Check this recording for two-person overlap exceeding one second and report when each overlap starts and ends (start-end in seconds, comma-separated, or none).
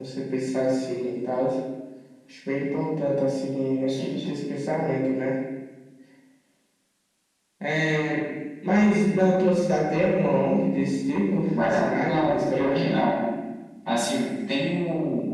11.6-12.8